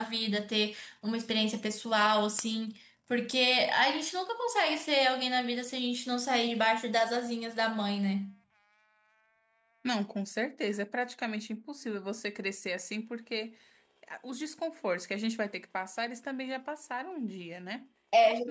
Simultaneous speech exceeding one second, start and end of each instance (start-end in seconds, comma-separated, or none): none